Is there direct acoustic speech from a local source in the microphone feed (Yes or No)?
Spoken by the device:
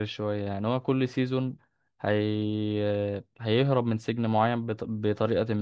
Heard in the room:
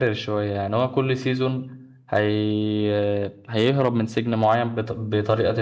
No